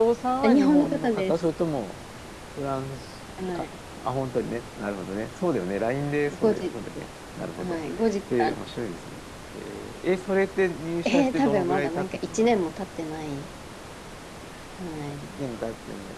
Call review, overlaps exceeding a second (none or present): present